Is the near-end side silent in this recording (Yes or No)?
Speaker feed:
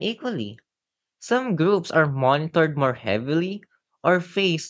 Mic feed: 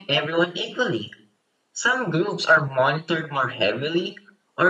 Yes